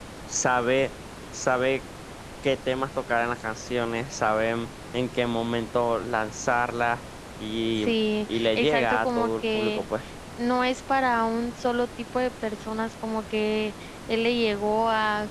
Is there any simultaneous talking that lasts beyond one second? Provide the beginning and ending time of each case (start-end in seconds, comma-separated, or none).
8.3-9.8